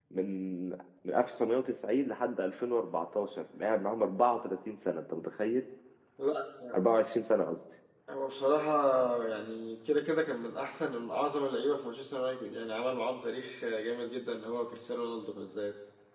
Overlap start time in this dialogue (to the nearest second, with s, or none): none